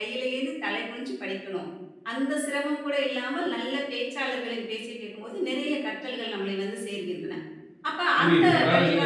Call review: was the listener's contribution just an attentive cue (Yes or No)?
No